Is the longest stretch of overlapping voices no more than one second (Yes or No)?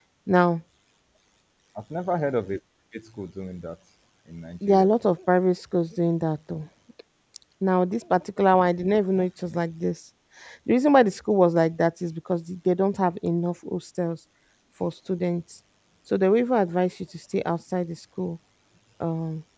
Yes